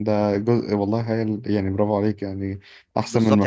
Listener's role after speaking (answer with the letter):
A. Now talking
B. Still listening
A